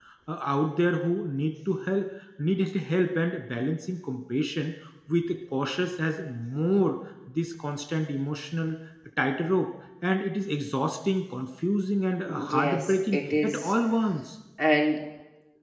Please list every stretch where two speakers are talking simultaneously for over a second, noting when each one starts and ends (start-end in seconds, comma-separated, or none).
12.5-13.7